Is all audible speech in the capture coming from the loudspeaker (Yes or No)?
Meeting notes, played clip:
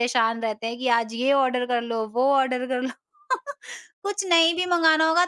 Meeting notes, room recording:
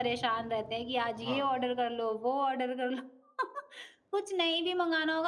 No